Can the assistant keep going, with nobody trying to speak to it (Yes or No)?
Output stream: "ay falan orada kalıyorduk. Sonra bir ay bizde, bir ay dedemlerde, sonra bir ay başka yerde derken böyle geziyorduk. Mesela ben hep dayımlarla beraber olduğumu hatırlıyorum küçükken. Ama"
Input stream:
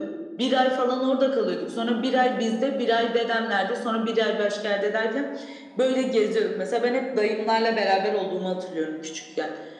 Yes